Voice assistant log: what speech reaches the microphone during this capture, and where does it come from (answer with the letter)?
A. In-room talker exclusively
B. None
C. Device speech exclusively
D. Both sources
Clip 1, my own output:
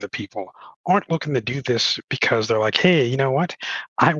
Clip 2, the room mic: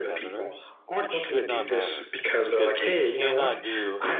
D